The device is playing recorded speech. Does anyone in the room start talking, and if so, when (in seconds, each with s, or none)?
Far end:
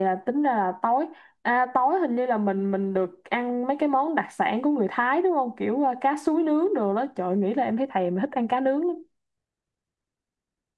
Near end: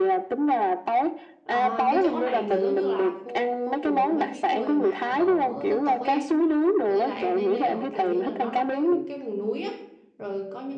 1.5 s